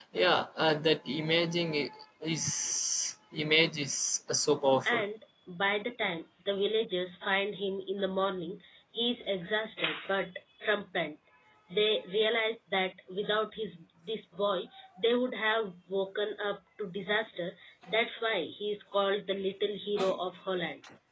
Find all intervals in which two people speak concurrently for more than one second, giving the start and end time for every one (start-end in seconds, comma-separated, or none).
none